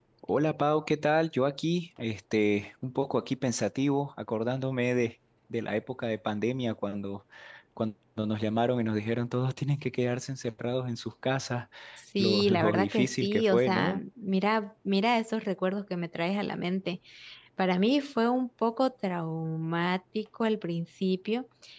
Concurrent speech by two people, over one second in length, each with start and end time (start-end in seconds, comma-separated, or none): 12.2-14.0